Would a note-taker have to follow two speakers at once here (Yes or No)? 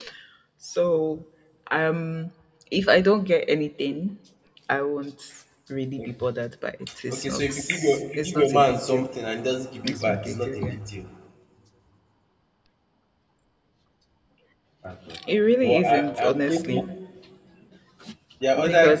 Yes